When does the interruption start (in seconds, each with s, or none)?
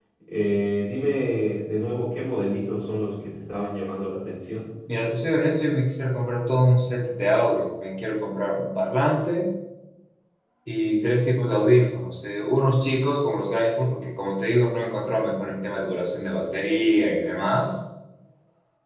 none